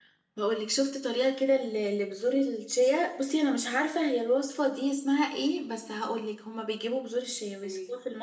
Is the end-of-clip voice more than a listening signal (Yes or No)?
No